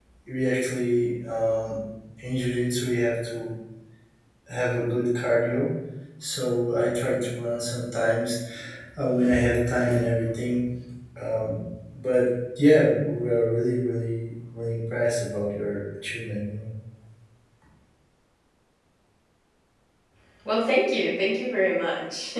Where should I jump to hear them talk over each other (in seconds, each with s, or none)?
none